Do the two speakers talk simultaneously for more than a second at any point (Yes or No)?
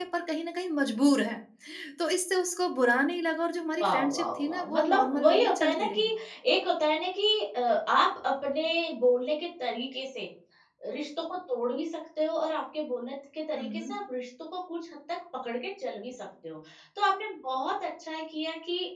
Yes